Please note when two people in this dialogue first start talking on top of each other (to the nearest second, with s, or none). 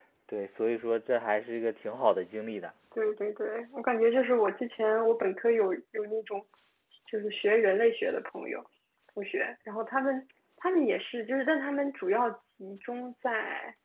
none